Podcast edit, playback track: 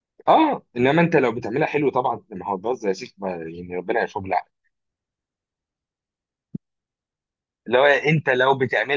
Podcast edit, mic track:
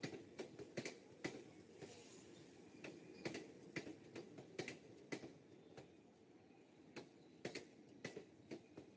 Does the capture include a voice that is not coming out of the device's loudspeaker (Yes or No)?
No